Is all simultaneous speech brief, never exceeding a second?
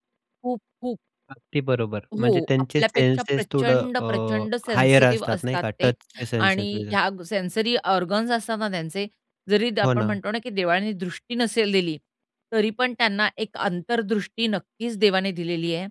No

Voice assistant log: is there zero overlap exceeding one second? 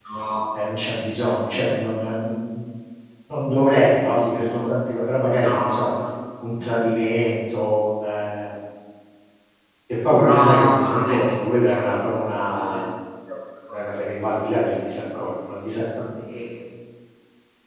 No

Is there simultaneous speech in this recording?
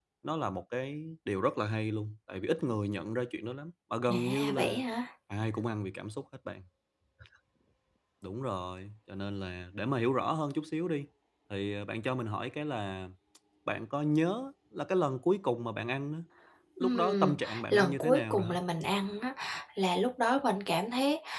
Yes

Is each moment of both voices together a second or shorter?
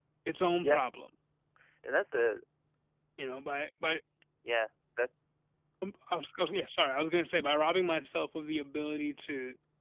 Yes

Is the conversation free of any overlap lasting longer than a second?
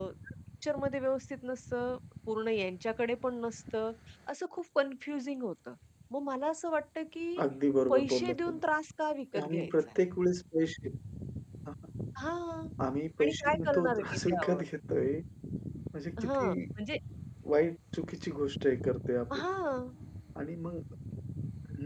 No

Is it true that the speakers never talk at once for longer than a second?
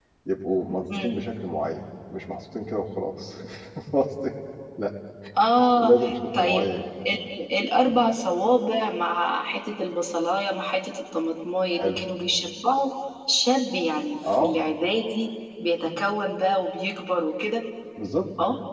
Yes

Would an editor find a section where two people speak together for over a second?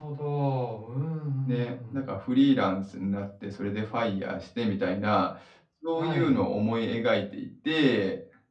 No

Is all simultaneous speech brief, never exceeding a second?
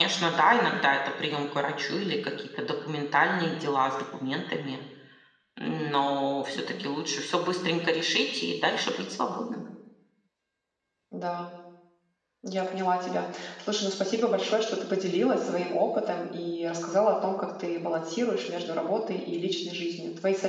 Yes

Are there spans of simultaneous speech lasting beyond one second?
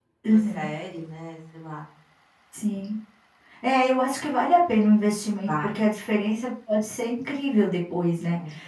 No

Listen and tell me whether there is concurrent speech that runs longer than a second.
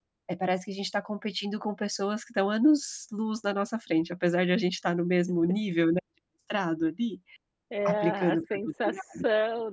Yes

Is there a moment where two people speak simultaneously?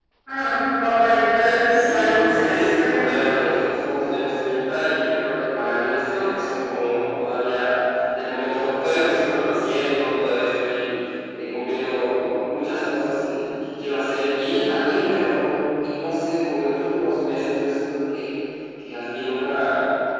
Yes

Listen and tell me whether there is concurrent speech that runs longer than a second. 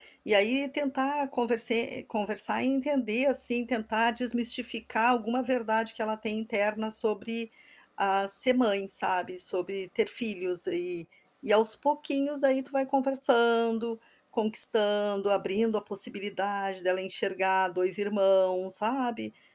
No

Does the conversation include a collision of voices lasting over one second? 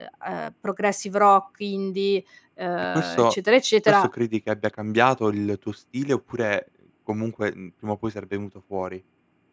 No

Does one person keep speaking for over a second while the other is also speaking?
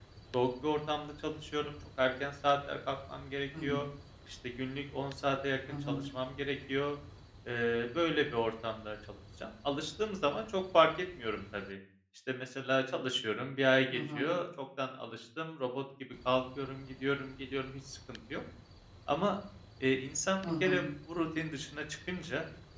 No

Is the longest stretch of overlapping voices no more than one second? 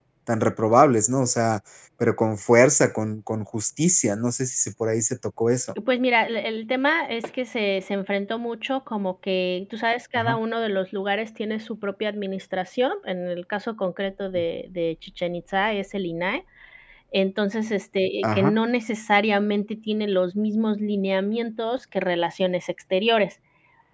Yes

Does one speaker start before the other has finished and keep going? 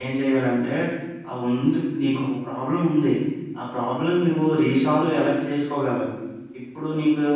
No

